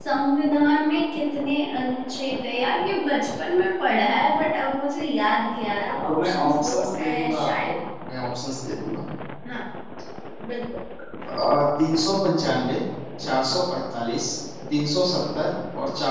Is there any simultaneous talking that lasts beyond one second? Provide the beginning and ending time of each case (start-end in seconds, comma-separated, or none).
6.1-7.8